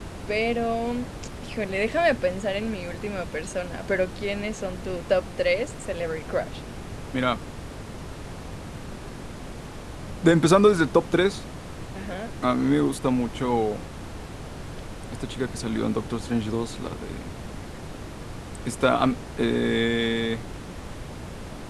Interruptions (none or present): none